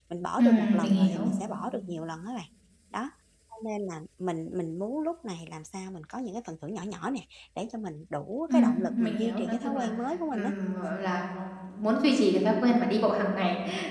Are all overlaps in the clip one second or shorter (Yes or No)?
No